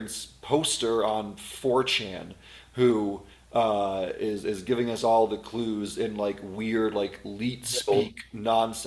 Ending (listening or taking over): listening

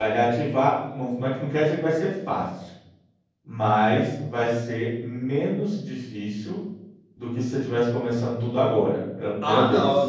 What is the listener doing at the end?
taking over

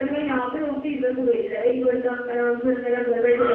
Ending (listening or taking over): taking over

